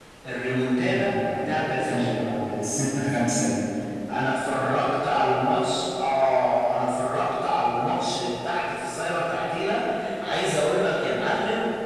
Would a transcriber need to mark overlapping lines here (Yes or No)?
Yes